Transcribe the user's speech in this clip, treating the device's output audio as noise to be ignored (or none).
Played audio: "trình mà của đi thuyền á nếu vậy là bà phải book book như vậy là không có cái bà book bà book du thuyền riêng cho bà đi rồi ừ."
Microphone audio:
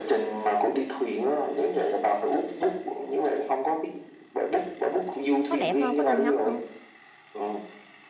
có đẹp không có nên ngắm không